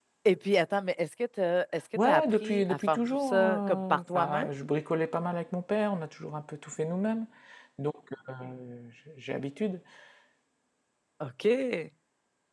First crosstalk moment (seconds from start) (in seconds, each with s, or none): 1.9 s